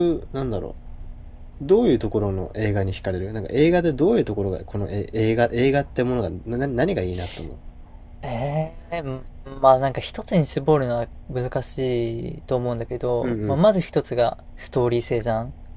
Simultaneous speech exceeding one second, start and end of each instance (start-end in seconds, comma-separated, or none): none